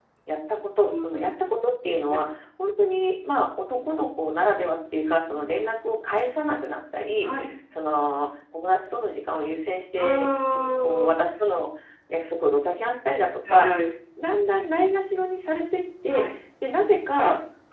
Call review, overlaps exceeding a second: none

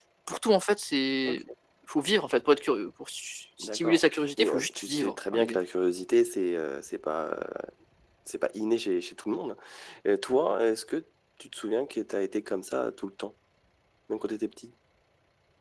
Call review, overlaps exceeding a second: present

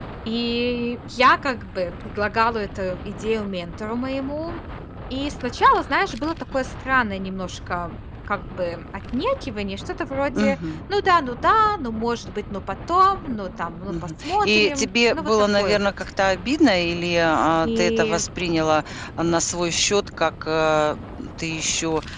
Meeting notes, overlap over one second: present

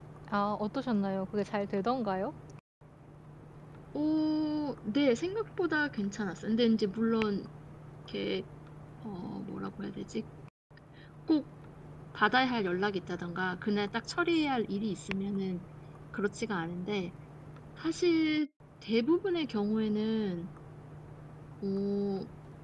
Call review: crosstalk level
none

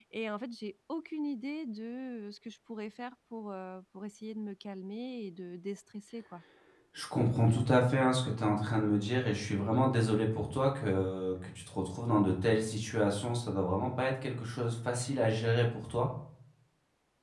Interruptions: none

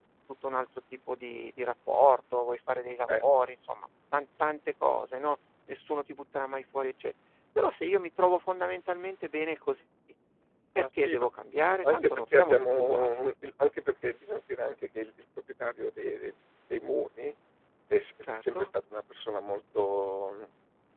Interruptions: present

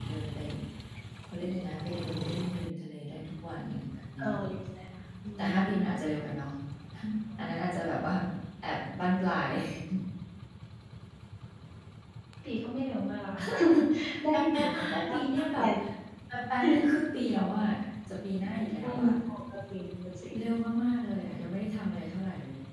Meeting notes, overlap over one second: present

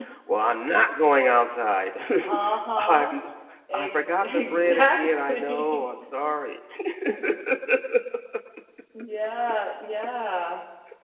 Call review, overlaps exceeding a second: present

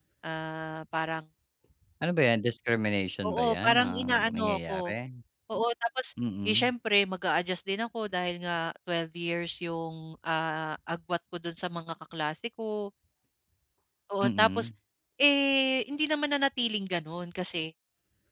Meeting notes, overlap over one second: present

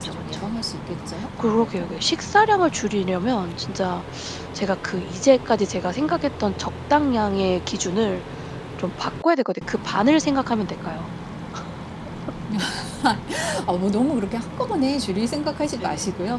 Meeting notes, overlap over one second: none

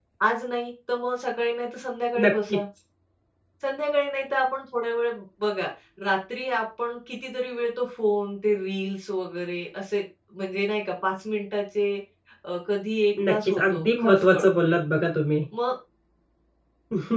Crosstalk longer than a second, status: present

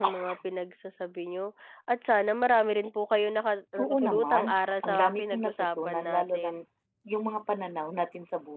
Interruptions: present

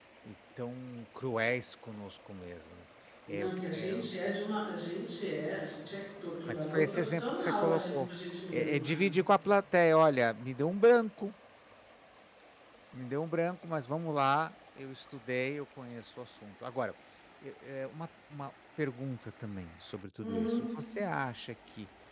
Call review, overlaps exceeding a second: present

